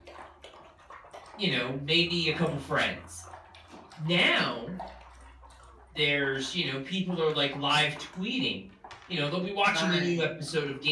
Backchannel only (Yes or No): Yes